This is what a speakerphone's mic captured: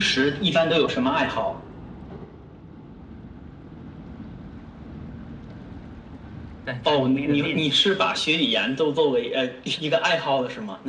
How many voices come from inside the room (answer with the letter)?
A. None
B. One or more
B